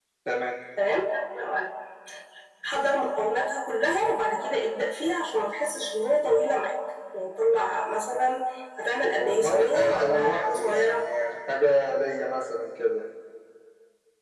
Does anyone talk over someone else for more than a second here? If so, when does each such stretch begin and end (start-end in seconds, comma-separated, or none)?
9.1-11.0